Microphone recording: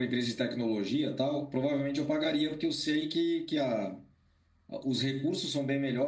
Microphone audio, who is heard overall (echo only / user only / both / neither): echo only